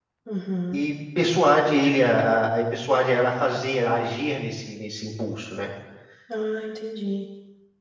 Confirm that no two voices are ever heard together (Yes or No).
Yes